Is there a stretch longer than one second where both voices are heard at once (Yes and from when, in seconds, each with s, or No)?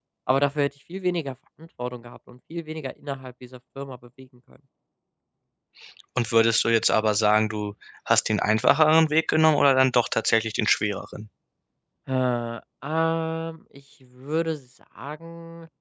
No